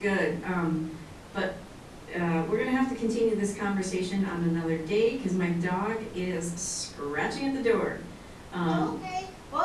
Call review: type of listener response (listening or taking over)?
taking over